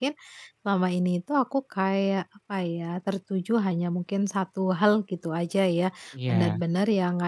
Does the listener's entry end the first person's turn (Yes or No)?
No